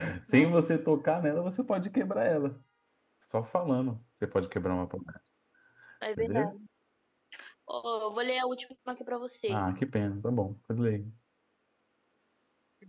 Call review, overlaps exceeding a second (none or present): none